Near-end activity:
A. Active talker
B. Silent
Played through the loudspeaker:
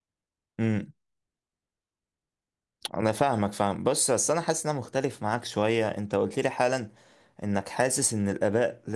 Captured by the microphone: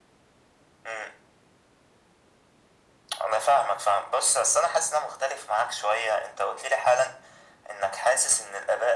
B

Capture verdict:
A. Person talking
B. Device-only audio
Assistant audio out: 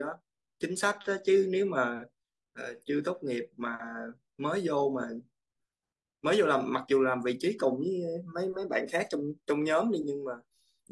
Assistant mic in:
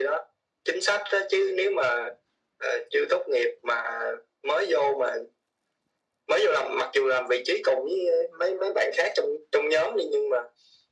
B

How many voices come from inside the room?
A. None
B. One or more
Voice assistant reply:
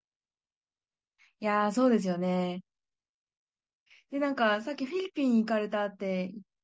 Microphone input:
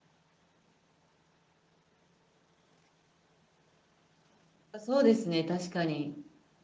B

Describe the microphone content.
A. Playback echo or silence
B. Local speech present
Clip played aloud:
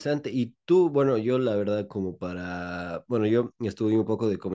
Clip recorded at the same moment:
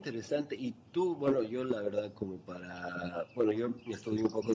A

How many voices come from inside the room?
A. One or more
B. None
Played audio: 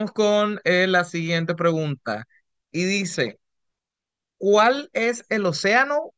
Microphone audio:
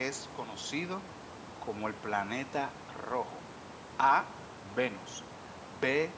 A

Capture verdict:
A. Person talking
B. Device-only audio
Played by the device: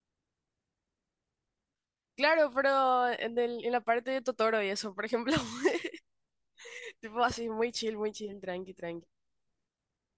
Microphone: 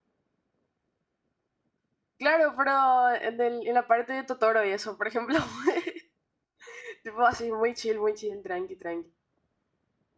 B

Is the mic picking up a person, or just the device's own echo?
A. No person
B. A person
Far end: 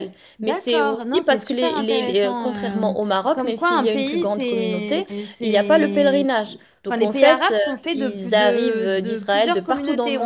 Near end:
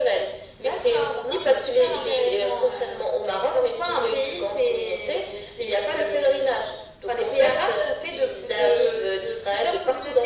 A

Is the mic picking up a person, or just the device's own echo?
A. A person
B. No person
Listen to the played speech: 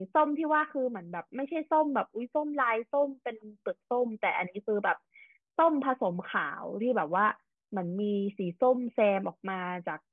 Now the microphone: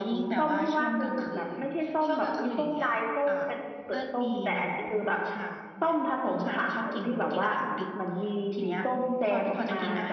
A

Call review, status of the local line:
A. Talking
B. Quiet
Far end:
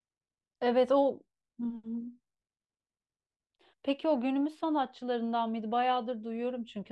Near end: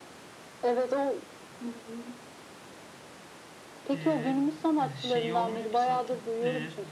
A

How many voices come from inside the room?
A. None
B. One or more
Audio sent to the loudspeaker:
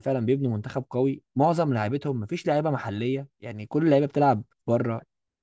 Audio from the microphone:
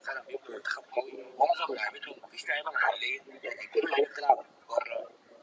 A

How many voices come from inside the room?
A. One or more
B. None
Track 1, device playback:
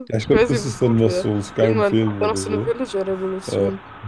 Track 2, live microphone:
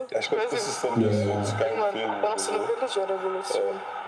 A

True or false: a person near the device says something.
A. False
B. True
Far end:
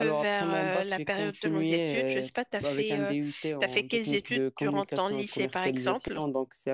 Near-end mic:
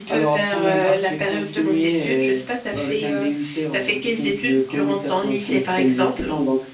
A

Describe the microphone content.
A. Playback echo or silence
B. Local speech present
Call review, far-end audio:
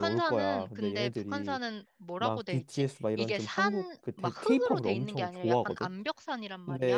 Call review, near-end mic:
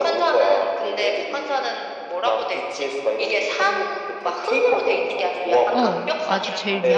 B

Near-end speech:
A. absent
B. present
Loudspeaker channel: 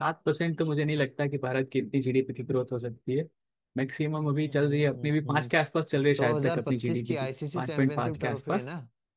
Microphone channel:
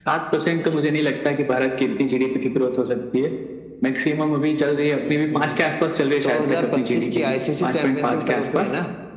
A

